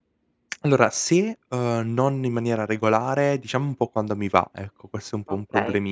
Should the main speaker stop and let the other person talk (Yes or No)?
Yes